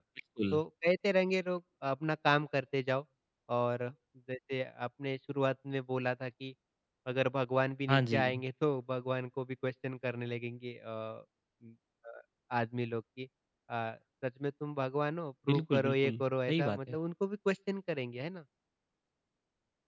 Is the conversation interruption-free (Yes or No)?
No